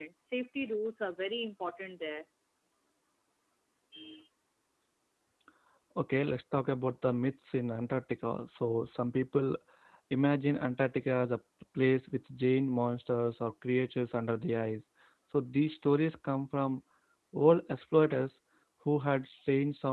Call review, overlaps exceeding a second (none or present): none